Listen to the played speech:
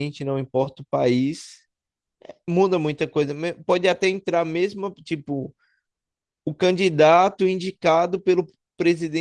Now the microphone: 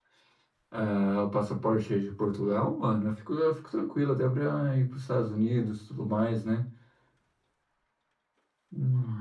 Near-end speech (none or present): present